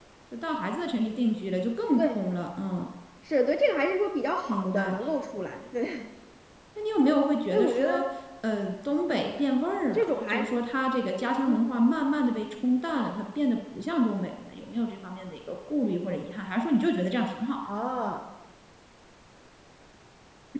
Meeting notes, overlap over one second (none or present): none